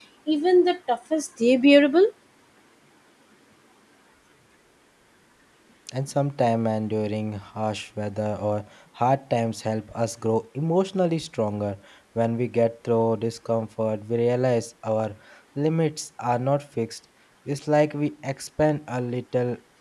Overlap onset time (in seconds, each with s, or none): none